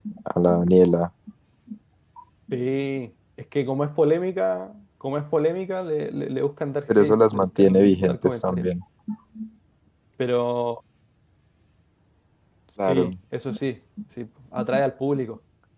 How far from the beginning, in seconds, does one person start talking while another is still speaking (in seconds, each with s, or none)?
7.0 s